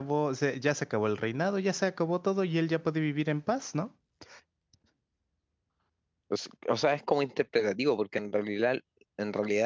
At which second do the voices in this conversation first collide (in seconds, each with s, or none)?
none